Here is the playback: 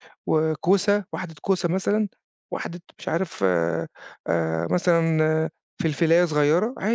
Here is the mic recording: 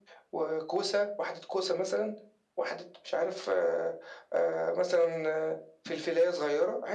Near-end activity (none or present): none